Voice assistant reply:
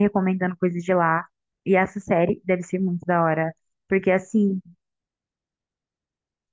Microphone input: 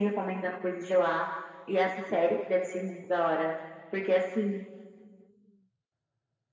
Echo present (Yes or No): Yes